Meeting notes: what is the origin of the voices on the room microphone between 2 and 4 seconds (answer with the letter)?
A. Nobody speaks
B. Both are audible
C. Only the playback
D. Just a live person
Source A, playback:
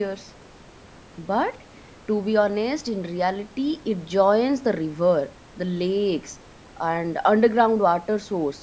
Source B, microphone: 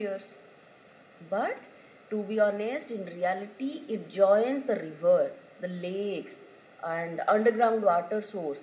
C